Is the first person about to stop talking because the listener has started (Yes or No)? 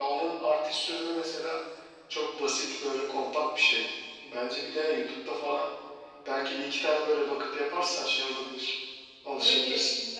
Yes